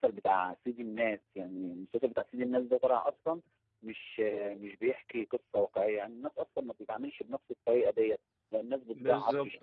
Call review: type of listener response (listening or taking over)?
listening